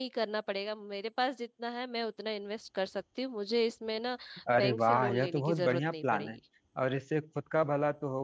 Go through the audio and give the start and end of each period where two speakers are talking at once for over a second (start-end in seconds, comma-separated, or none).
4.5-6.4